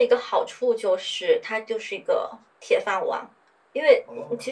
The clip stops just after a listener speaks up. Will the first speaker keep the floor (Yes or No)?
Yes